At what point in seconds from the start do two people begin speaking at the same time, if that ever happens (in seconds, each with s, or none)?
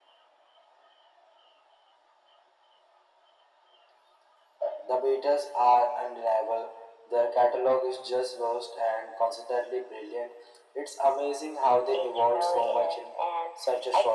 11.9 s